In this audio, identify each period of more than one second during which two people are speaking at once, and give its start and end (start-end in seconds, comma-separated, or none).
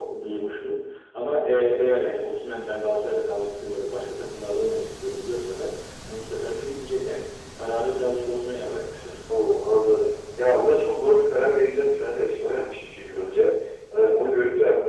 none